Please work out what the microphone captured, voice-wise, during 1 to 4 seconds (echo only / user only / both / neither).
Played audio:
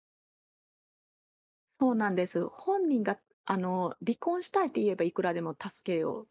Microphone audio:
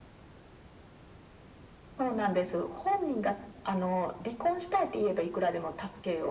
echo only